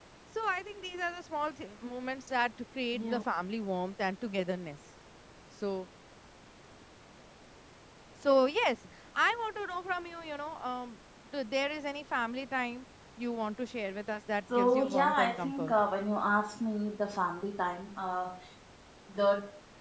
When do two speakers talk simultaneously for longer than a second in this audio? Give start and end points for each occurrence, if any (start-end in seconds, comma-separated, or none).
14.5-15.8